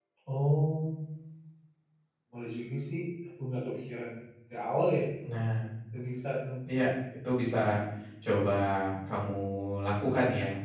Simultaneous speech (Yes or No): No